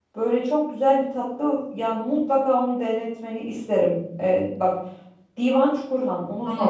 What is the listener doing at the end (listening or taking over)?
taking over